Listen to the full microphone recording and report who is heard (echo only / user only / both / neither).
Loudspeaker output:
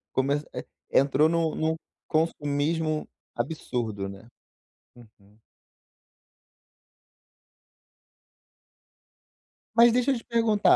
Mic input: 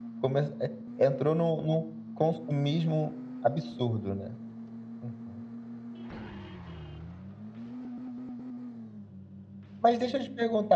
echo only